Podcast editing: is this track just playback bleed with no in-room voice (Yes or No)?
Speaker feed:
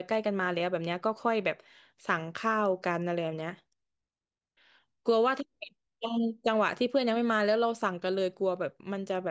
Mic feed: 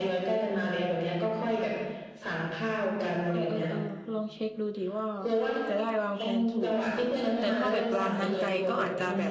No